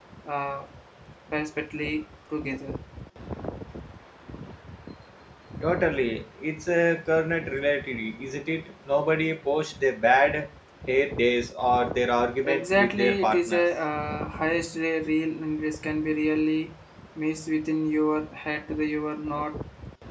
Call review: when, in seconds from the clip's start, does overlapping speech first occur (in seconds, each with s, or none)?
12.4 s